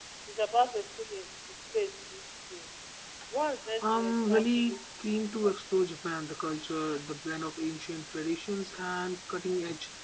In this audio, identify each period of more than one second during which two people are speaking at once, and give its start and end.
3.8-5.1

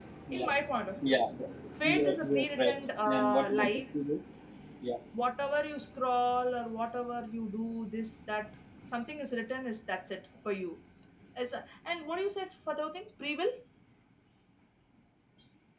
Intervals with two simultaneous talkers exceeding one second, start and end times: 1.8-3.8

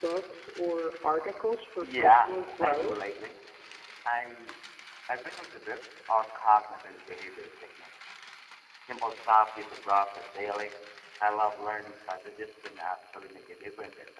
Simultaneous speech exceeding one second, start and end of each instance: 1.8-3.0

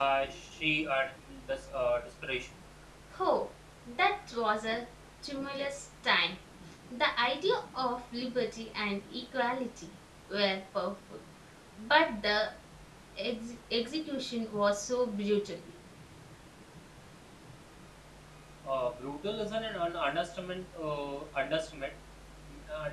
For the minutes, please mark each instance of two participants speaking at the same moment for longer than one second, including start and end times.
none

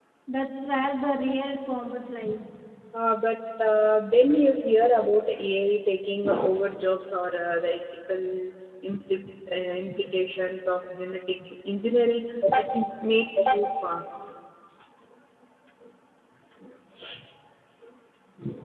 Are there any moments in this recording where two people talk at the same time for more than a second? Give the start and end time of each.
none

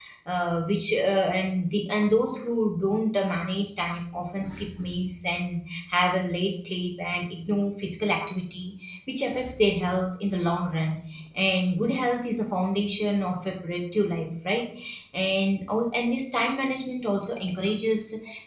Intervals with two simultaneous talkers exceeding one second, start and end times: none

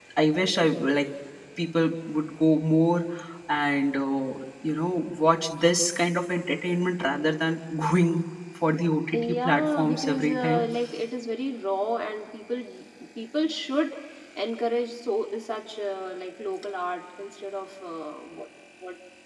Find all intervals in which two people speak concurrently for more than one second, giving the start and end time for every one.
9.1-10.6

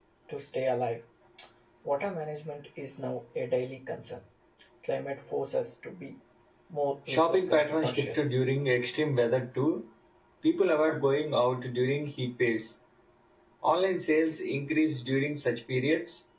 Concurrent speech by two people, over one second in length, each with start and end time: 7.1-8.3

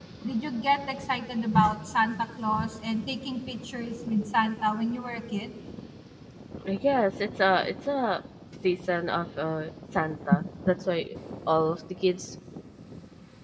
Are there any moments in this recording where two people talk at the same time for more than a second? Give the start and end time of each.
none

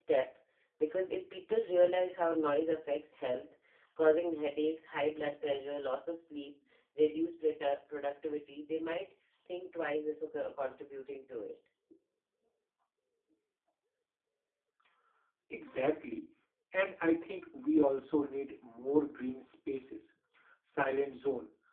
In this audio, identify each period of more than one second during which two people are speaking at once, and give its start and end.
none

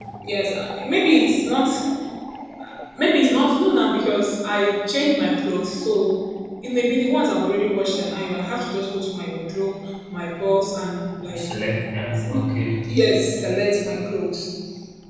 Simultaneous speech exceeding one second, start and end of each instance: none

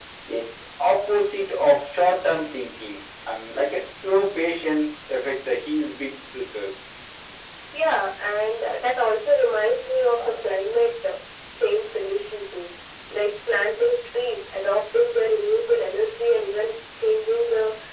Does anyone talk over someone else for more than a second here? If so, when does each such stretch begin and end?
none

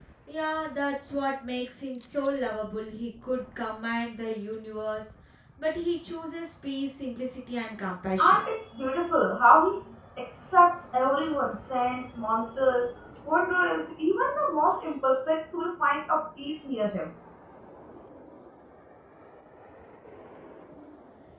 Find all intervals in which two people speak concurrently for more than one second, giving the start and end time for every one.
none

